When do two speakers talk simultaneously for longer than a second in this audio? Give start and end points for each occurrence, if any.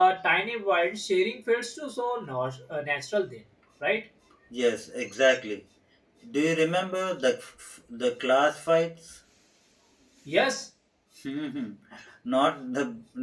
none

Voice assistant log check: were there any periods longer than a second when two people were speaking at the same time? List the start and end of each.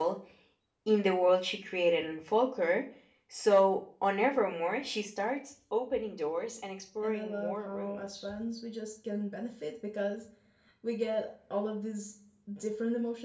7.0-8.3

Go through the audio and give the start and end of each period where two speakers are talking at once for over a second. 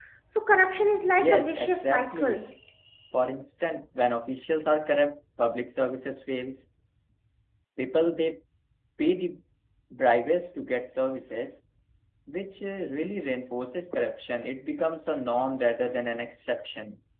1.2-2.4

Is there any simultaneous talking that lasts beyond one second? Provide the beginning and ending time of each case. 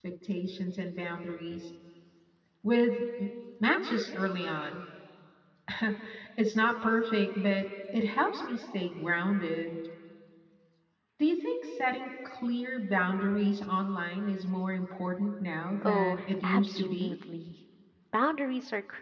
15.8-17.1

